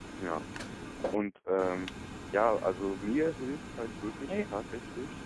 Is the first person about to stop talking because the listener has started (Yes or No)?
No